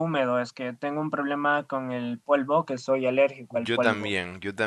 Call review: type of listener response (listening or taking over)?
taking over